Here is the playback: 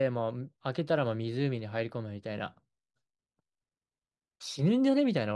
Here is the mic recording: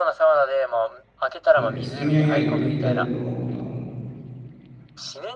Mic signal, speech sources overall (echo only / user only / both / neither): both